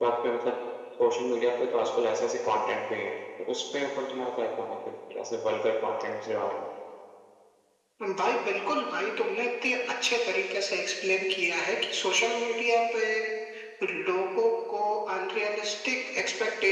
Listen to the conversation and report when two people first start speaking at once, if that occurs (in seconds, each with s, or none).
none